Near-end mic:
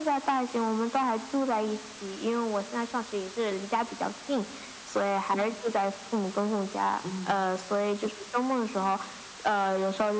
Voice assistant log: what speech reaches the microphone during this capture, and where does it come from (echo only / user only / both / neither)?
both